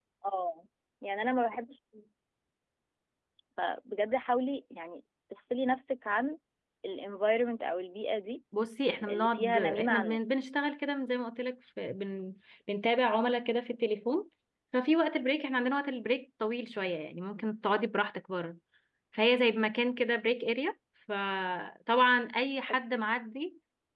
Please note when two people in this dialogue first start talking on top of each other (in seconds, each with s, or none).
9.1 s